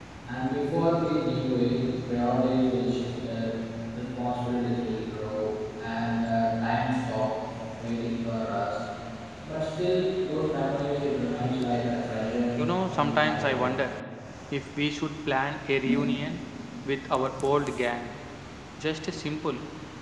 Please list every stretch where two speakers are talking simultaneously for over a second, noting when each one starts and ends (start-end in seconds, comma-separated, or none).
12.6-13.8